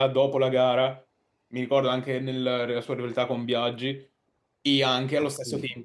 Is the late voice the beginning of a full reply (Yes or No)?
No